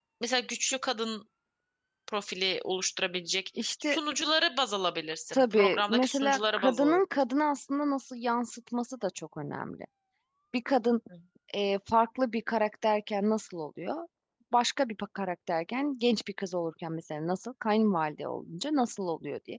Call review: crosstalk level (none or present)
present